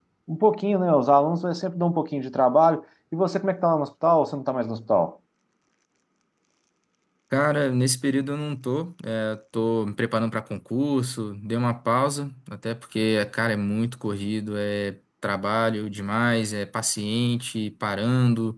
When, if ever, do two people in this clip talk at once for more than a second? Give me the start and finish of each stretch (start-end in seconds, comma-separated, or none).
none